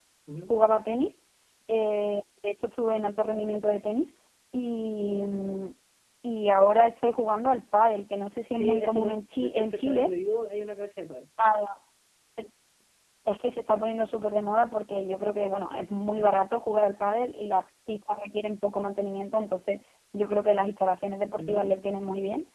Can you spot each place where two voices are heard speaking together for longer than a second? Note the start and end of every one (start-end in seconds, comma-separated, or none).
8.5-10.1